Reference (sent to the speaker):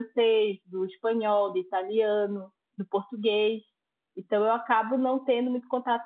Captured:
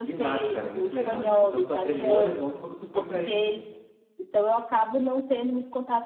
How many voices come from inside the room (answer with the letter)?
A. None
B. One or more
B